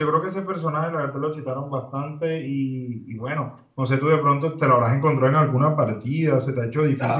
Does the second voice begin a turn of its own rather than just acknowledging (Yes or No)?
Yes